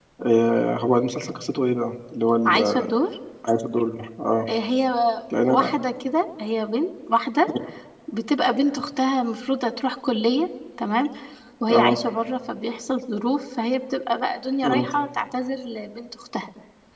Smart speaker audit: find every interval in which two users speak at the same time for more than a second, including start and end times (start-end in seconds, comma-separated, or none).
none